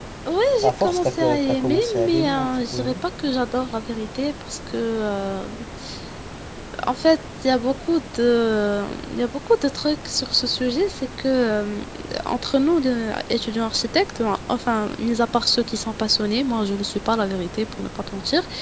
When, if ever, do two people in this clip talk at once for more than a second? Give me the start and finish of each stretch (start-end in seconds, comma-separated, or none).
0.6-3.0